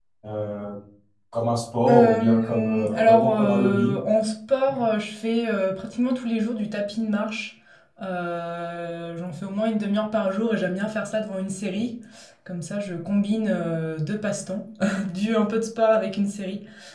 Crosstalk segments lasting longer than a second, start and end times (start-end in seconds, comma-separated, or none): 1.9-3.9